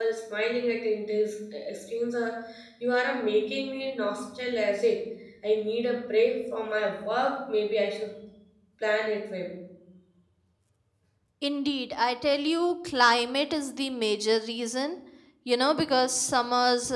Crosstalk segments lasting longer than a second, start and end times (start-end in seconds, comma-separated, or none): none